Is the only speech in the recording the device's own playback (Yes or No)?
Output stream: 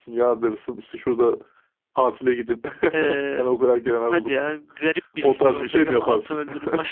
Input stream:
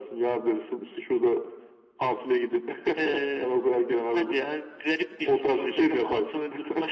Yes